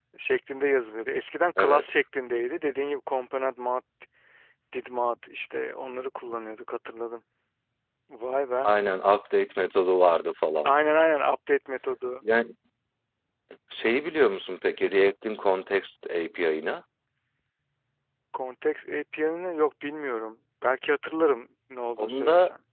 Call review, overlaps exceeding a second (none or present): none